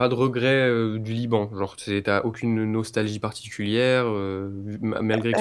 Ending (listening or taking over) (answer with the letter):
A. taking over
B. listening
B